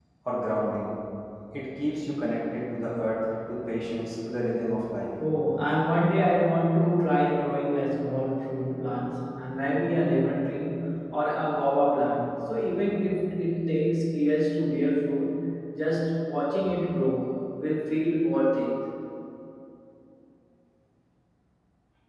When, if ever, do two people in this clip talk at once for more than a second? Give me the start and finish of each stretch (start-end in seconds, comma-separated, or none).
none